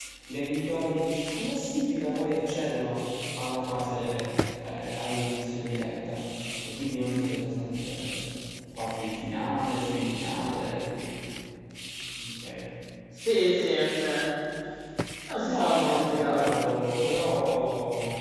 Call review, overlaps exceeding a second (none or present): present